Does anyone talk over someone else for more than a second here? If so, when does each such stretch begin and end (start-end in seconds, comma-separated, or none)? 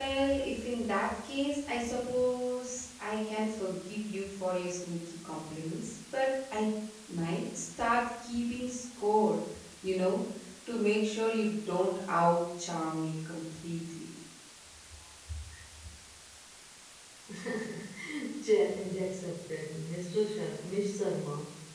none